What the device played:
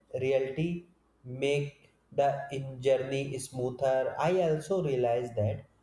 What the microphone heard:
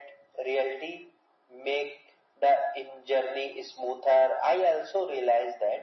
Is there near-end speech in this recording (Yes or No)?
No